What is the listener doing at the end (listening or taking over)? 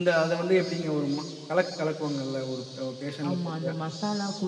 taking over